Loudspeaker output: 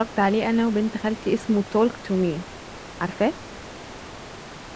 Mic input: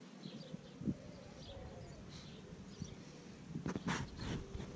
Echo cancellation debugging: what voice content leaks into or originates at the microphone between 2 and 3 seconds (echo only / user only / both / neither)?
neither